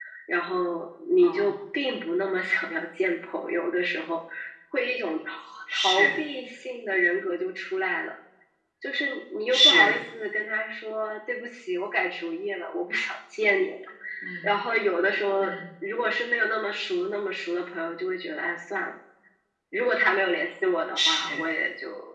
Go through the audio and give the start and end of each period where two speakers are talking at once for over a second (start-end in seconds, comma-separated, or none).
none